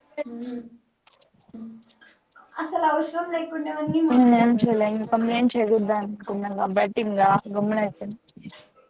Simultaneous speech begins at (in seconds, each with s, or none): 4.1 s